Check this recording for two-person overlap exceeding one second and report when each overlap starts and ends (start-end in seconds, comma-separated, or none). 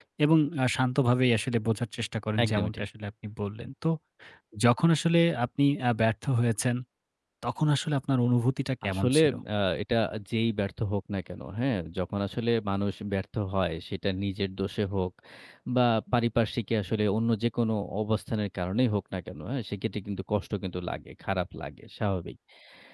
none